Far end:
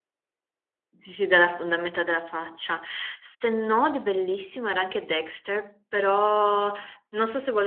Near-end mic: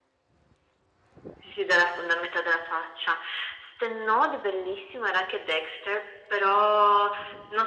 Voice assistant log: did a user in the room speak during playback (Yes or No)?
No